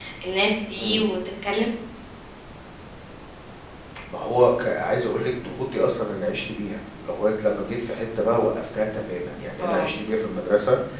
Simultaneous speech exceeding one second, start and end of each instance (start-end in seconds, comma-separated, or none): none